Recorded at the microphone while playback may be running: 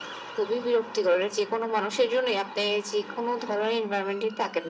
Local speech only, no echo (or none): none